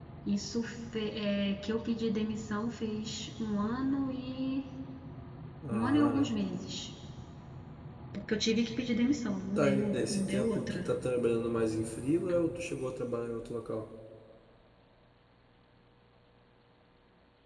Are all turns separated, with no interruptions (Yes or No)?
No